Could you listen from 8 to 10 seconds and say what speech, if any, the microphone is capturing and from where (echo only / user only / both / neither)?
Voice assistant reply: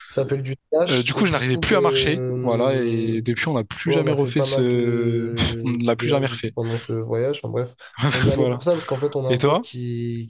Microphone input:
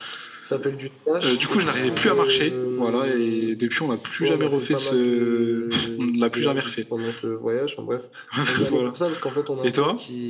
echo only